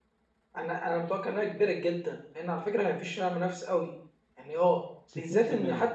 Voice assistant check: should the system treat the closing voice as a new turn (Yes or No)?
No